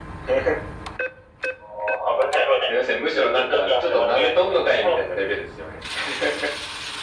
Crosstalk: present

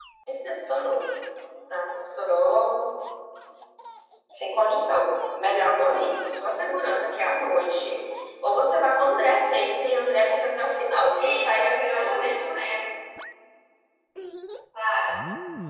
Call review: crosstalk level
present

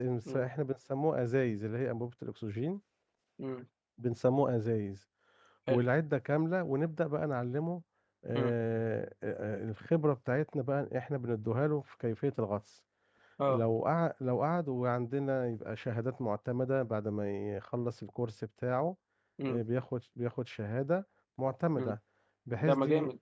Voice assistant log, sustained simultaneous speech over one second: none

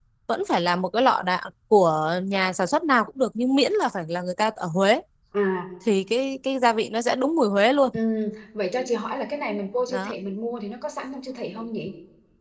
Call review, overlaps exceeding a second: none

